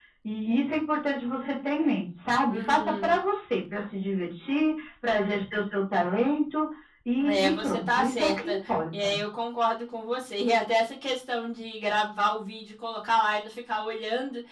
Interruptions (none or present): present